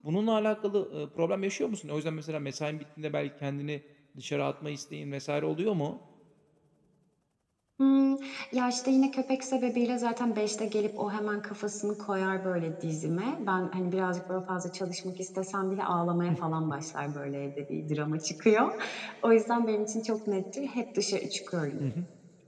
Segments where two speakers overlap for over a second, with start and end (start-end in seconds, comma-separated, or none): none